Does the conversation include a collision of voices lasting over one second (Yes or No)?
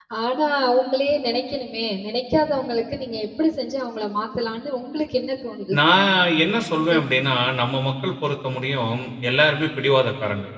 No